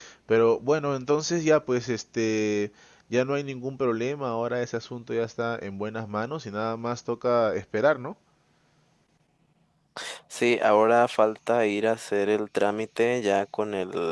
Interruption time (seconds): none

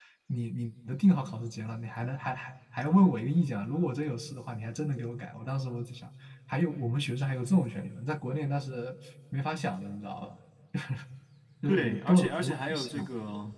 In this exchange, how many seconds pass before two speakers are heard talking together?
11.7 s

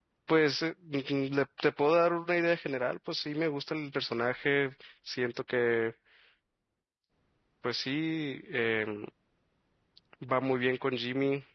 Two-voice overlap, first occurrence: none

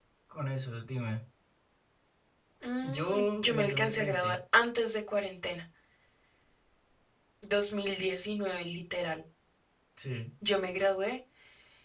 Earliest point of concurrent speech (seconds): 2.8 s

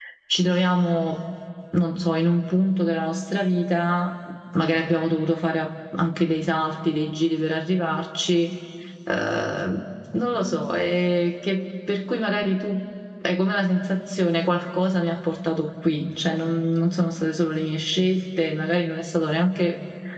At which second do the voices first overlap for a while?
none

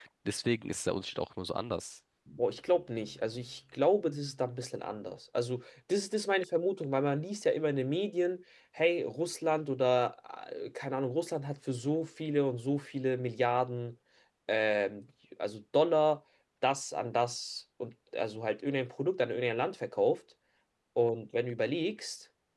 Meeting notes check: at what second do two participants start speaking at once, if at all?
none

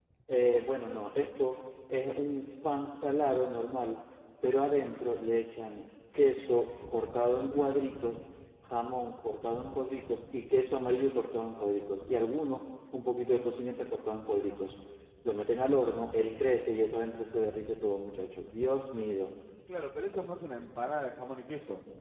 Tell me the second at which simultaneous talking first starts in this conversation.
none

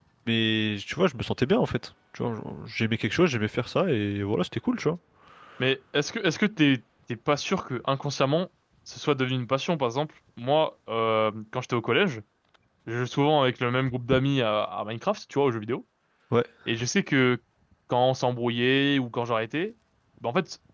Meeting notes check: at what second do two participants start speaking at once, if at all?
none

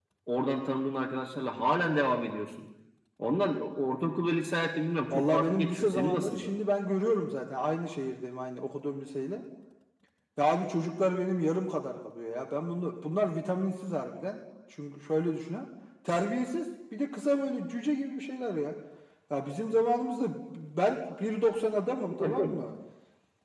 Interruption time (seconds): 5.1 s

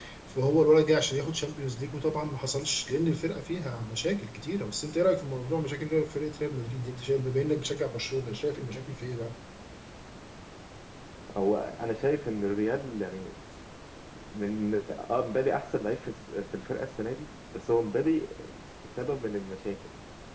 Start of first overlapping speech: none

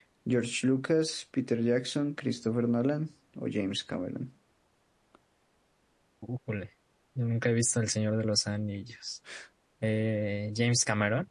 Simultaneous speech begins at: none

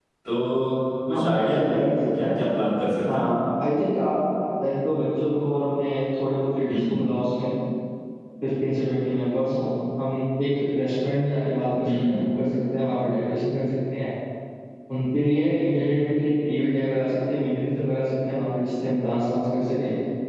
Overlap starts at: 1.1 s

